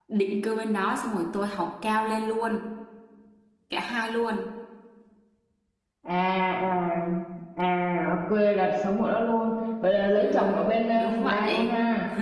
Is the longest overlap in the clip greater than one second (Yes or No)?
Yes